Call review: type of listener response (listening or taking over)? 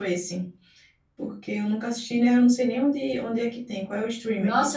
taking over